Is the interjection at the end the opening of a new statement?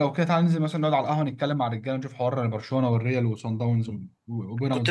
Yes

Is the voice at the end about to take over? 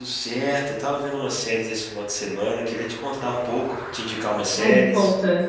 Yes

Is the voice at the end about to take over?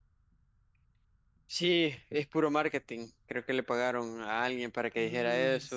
Yes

